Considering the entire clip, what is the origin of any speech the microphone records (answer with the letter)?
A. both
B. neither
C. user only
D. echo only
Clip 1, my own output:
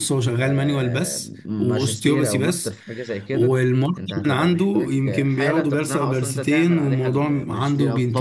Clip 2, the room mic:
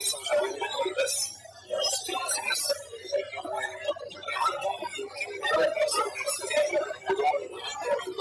D